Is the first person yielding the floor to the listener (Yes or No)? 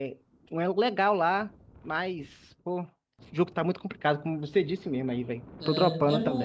Yes